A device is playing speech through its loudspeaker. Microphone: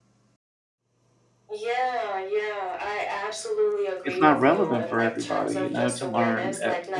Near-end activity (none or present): present